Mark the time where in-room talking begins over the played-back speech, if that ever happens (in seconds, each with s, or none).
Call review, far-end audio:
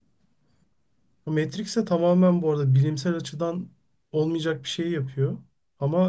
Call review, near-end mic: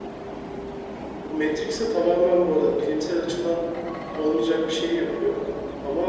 none